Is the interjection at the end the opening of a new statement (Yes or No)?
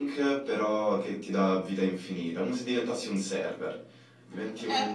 Yes